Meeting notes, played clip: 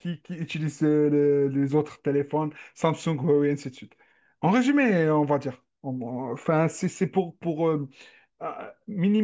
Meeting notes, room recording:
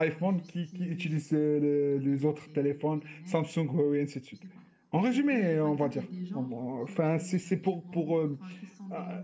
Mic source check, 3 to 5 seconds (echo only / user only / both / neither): both